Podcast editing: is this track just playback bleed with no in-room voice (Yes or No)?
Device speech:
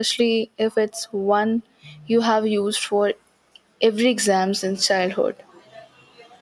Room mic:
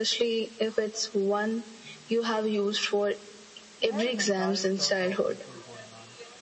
No